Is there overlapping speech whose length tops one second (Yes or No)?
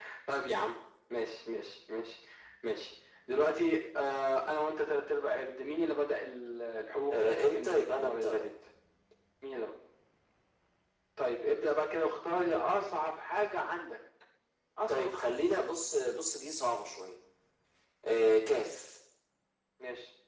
Yes